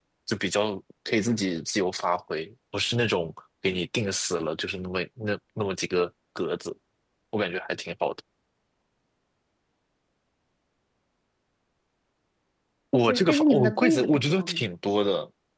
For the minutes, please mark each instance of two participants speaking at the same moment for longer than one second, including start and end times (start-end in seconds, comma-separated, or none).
13.1-14.6